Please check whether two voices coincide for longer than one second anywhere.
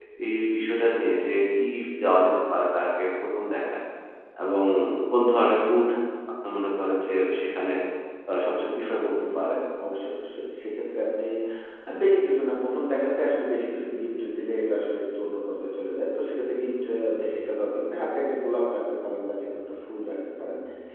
No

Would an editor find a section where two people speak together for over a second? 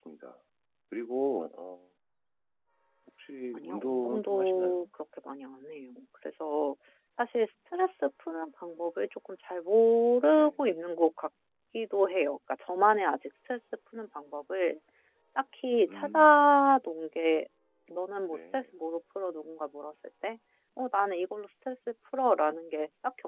Yes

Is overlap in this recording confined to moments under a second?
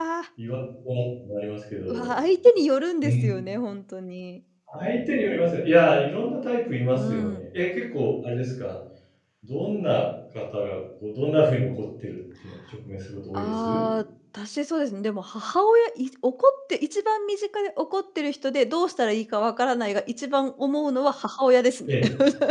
Yes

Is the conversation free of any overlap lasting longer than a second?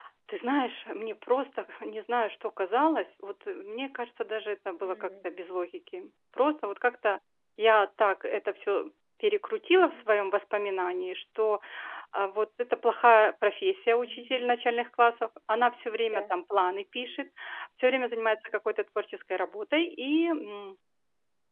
Yes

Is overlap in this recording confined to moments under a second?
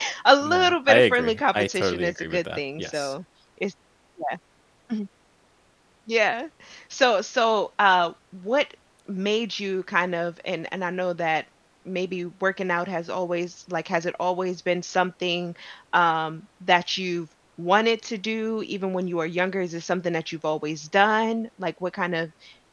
No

